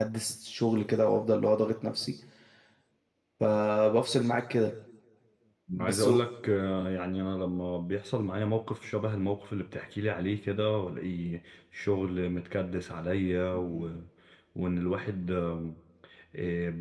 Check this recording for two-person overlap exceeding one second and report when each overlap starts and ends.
none

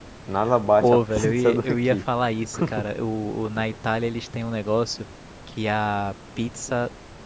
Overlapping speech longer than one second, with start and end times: 0.8-2.0

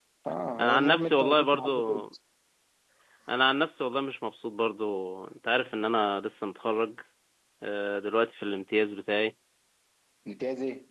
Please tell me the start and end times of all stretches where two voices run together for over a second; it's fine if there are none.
0.6-2.0

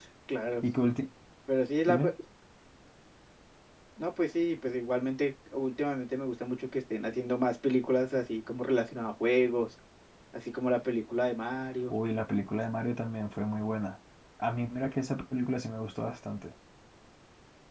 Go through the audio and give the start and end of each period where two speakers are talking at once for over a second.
none

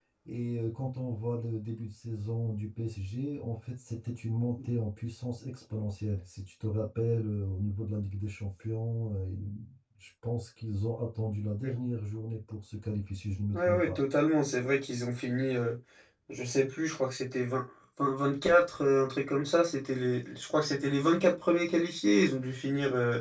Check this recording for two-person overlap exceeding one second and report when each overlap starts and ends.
none

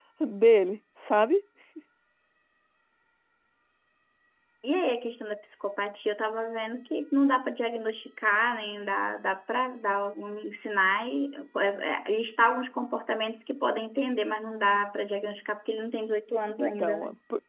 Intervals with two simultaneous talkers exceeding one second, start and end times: none

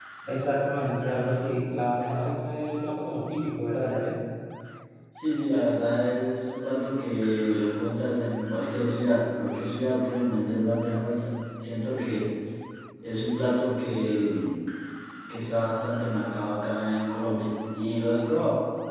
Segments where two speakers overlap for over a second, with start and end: none

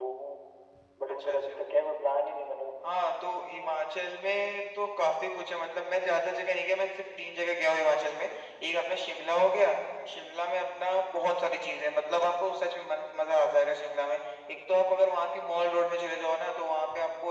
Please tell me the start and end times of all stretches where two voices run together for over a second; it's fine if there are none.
none

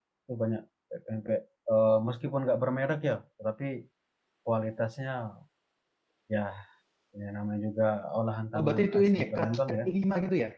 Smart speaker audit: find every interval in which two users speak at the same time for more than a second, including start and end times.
8.6-9.8

